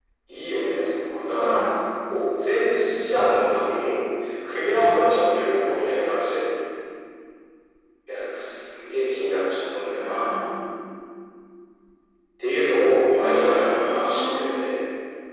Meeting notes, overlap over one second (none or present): present